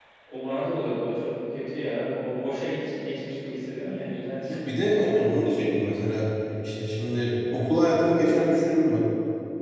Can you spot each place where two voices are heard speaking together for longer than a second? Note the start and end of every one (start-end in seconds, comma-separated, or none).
none